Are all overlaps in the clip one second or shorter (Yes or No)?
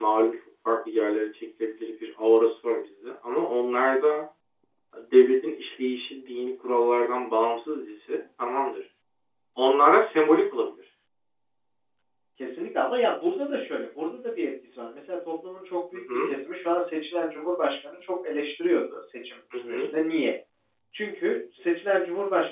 Yes